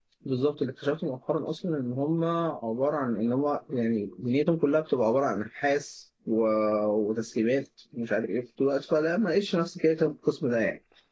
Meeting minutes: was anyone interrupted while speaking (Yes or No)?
No